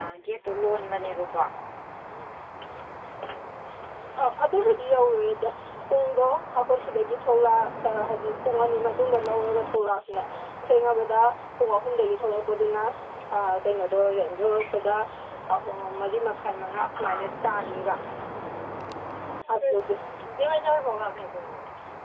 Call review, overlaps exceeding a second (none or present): none